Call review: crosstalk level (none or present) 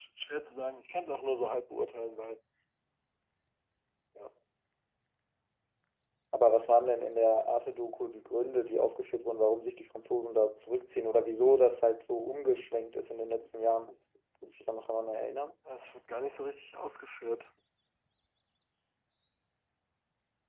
none